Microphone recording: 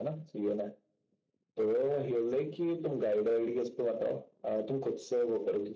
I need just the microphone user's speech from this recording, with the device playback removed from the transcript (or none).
none